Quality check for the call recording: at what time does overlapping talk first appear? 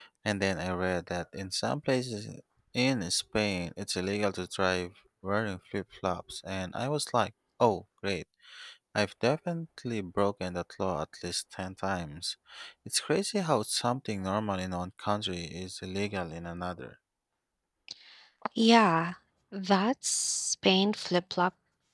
none

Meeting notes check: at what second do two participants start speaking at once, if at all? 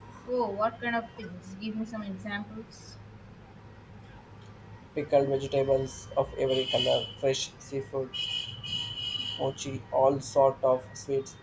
none

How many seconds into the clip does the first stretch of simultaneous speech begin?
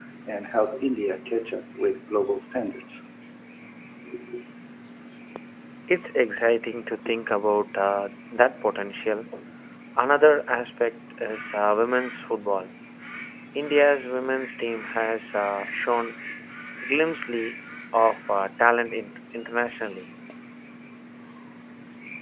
none

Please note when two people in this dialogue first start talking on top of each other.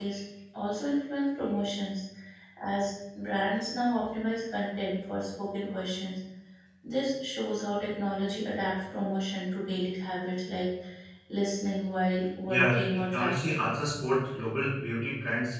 12.5 s

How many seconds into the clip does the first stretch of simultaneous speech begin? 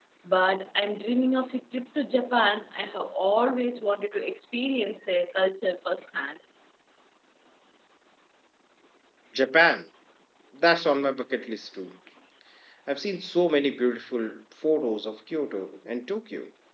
none

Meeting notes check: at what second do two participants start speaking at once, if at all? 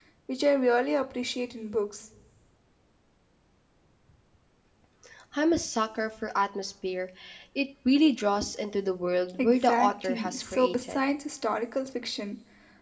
9.4 s

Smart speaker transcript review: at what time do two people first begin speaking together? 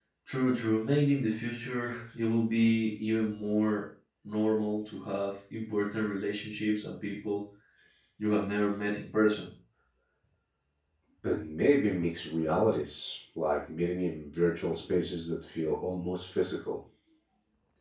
none

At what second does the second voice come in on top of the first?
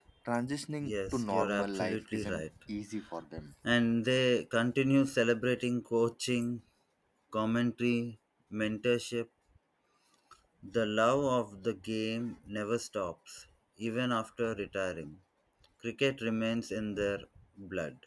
0.8 s

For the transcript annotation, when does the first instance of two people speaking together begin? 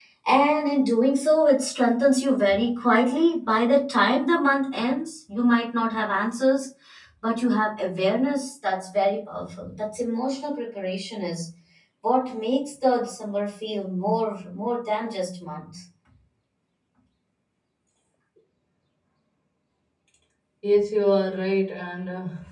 none

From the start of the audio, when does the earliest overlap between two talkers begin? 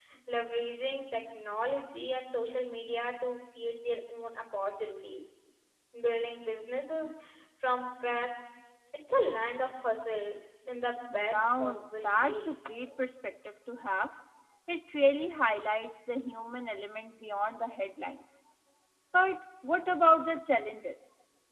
11.1 s

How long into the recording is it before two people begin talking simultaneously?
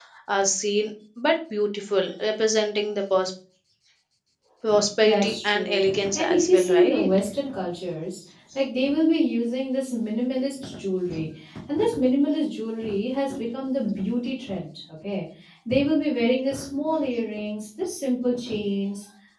5.0 s

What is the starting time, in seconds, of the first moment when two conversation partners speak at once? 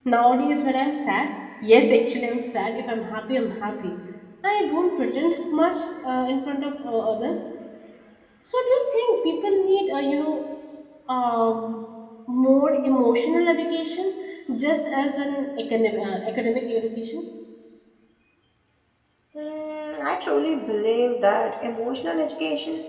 none

